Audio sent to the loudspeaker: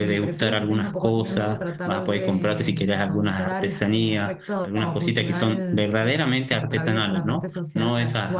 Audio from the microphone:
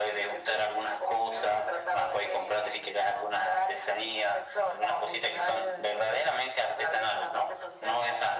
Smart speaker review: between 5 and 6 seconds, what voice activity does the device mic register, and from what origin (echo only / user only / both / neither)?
echo only